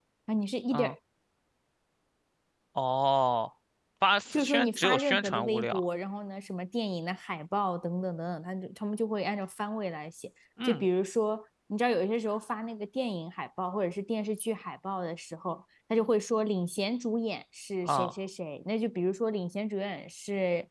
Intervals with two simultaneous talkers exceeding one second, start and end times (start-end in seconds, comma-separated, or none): 4.3-5.8